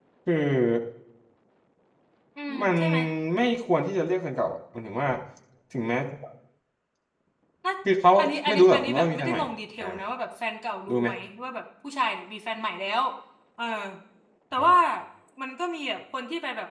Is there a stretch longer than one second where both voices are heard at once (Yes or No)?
Yes